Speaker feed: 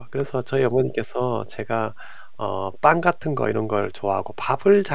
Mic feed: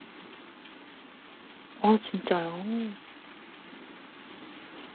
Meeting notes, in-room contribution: present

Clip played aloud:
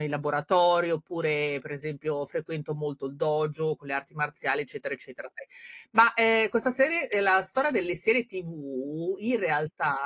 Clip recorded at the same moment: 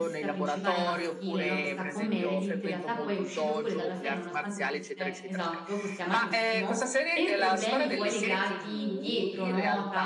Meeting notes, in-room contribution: present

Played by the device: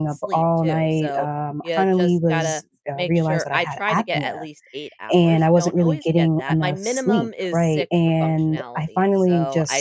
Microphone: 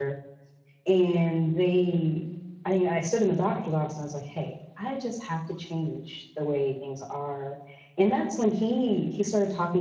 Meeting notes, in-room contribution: present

